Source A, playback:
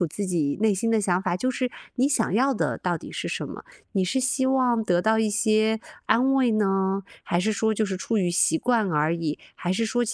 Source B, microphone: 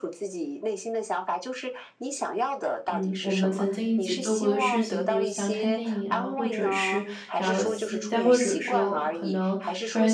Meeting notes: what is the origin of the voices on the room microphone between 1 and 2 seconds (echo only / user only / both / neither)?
echo only